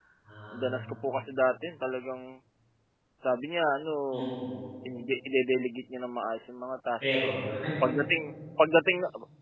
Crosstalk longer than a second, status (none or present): none